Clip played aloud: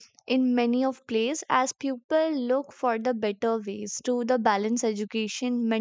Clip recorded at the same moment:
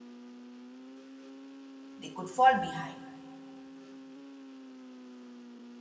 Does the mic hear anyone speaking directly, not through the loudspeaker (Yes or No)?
Yes